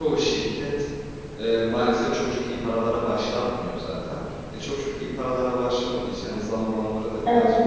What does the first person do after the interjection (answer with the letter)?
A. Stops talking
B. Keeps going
B